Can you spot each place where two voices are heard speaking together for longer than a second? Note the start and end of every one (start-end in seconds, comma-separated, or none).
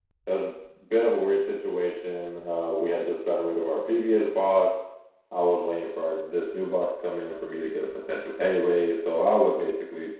none